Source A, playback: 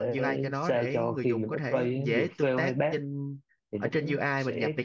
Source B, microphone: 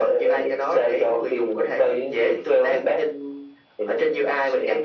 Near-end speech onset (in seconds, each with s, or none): none